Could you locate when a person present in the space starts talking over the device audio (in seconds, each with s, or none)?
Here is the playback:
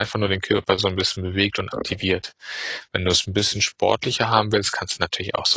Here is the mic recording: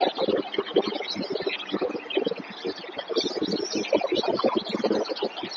none